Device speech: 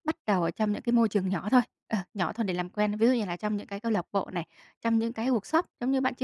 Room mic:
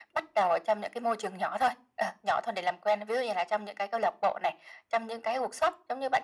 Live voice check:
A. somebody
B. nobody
B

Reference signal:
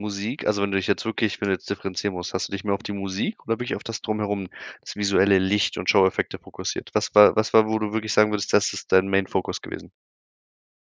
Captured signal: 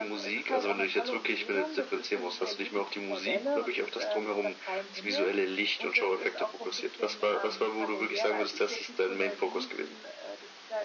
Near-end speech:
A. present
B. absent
A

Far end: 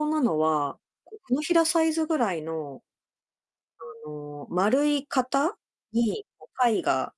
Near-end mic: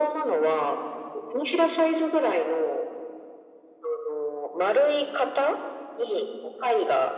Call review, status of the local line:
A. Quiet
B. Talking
A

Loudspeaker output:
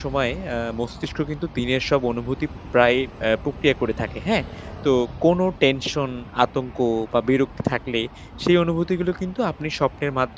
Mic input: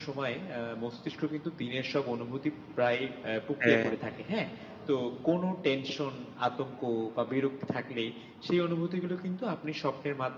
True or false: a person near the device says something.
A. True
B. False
A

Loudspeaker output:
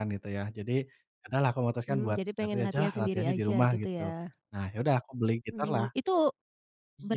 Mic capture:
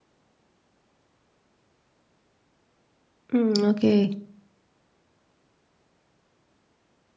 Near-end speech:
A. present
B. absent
A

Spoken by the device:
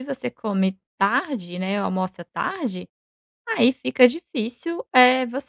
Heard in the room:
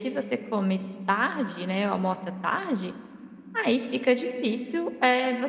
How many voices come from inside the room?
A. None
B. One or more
A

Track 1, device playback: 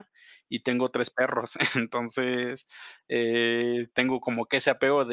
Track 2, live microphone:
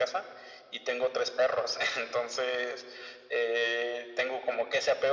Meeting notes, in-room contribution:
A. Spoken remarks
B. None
B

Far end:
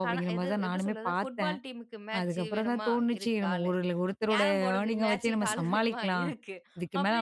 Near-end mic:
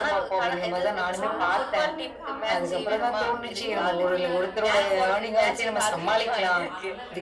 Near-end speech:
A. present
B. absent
A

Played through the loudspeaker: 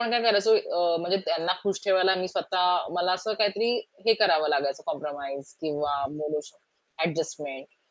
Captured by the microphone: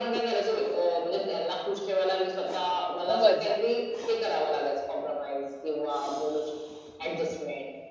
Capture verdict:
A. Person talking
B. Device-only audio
A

